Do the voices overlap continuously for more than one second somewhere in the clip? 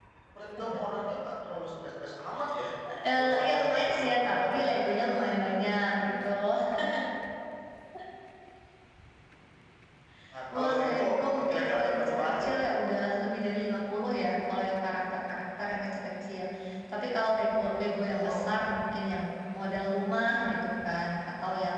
Yes, from 3.2 s

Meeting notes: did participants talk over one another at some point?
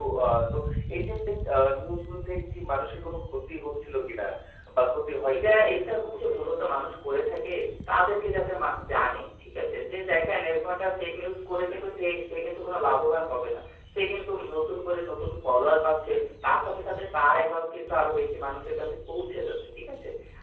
Yes, from 5.3 s

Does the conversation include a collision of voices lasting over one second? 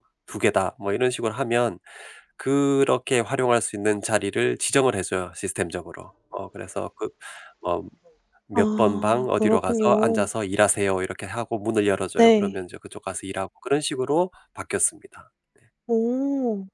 Yes, from 8.6 s

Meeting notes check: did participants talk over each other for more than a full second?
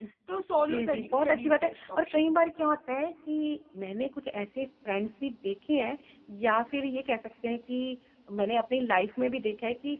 Yes, from 0.7 s

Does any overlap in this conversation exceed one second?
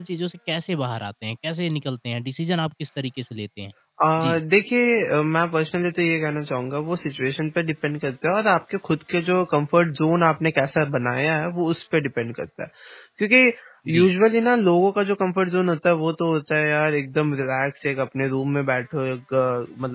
No

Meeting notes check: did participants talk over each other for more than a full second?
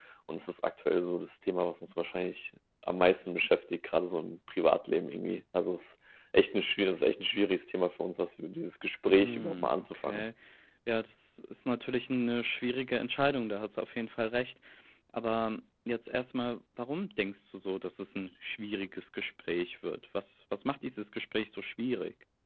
Yes, from 9.1 s

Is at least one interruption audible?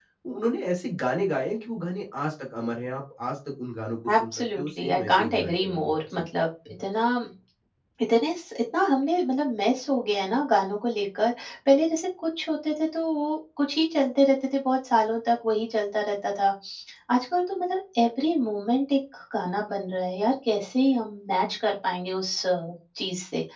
Yes, from 4.1 s

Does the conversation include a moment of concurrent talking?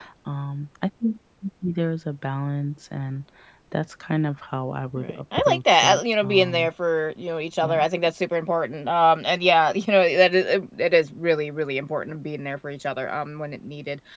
Yes, from 5.0 s

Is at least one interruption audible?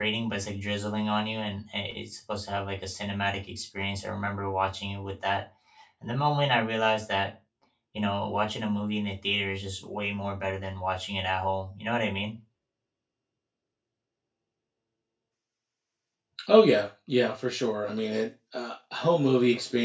No

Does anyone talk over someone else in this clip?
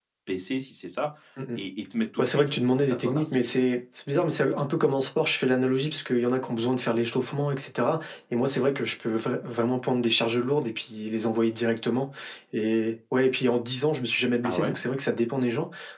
Yes, from 2.2 s

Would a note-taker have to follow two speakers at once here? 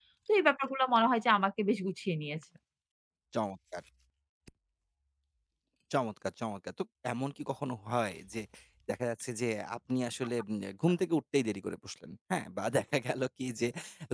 No

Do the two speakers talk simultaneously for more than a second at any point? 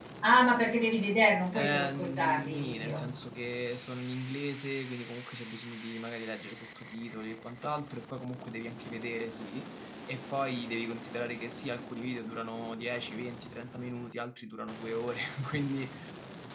Yes, from 1.5 s

